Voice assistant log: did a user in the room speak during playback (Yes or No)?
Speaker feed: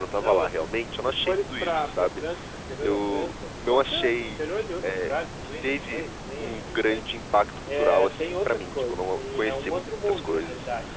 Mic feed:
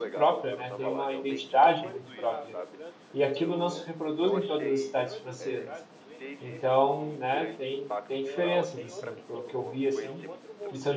Yes